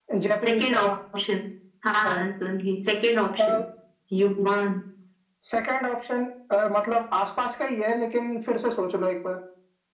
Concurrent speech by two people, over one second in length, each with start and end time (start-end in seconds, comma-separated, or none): none